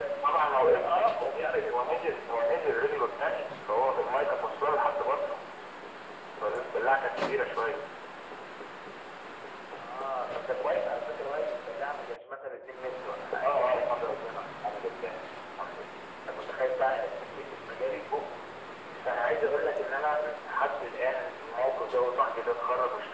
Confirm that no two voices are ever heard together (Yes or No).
No